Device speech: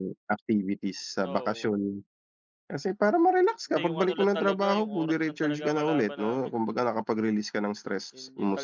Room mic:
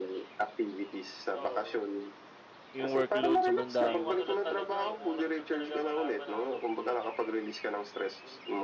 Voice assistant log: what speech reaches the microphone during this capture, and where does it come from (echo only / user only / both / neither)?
both